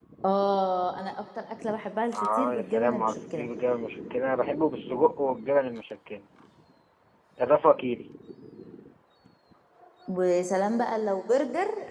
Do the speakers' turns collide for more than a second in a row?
Yes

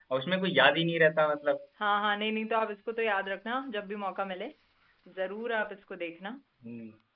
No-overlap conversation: Yes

